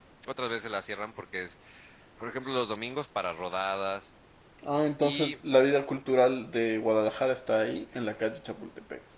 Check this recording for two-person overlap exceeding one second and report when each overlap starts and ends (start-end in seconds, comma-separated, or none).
none